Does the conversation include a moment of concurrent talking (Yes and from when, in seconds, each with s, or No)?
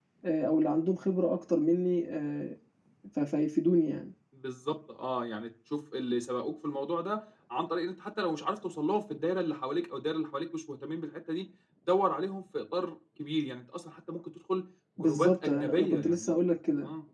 Yes, from 15.0 s